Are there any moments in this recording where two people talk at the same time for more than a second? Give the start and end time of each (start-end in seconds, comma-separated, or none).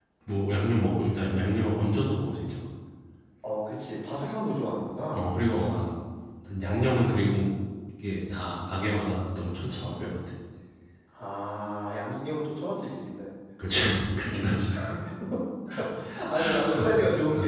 none